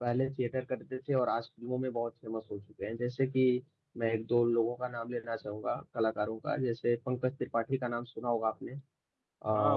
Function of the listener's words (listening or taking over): taking over